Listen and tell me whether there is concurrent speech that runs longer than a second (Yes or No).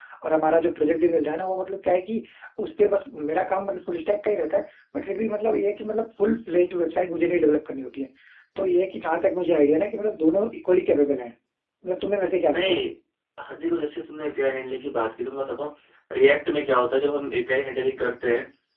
No